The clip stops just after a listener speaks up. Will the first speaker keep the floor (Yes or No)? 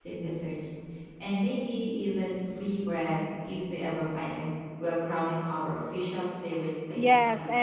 No